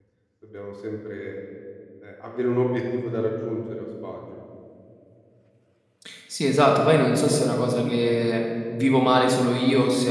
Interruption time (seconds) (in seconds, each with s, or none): none